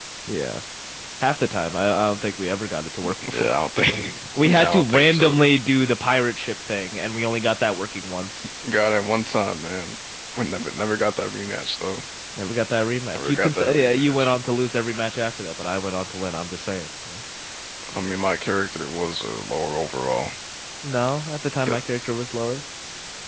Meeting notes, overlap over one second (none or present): present